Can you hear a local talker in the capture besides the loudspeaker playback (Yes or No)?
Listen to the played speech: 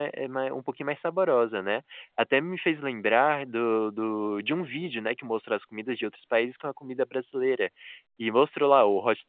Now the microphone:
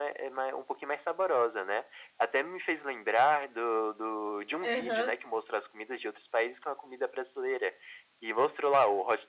Yes